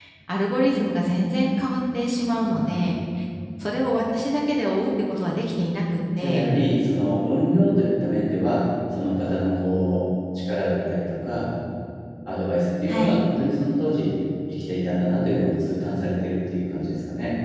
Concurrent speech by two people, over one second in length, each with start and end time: none

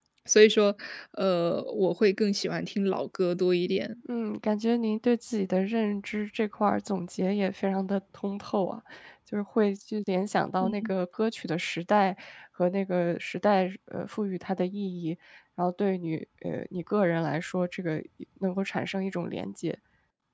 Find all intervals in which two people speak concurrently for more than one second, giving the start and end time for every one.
none

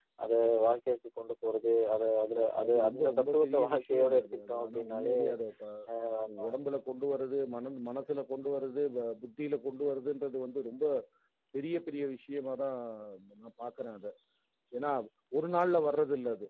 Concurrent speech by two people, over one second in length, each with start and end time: 2.7-5.2

